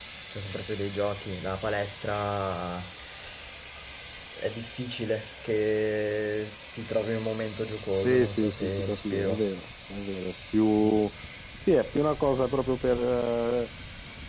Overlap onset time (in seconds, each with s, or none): 8.0 s